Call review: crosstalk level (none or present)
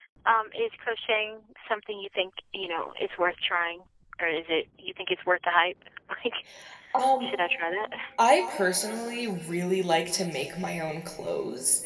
none